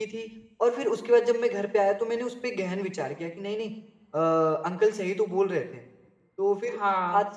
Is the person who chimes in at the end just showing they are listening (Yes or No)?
Yes